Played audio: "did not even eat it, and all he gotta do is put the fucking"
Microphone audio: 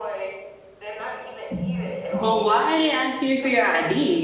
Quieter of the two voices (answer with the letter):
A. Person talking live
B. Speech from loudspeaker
B